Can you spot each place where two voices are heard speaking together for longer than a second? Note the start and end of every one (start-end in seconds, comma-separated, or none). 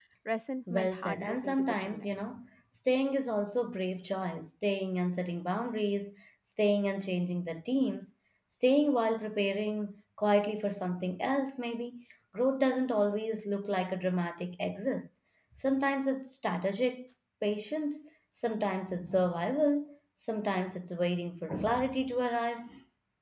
0.7-2.1